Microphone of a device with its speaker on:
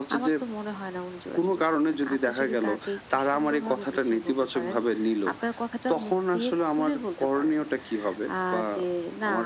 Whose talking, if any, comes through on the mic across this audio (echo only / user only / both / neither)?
echo only